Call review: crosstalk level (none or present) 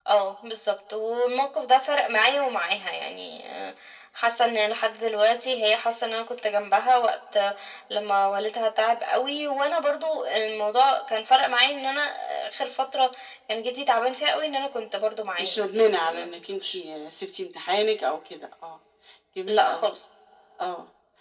present